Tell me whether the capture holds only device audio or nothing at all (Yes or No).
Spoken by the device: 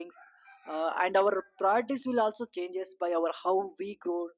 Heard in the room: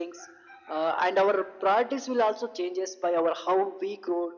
Yes